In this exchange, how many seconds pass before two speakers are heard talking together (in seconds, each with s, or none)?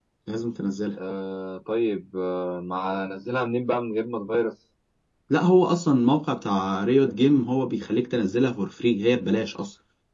none